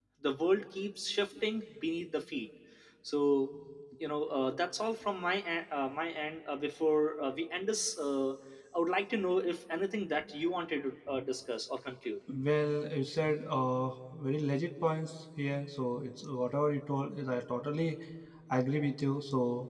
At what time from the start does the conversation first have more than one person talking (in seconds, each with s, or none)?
none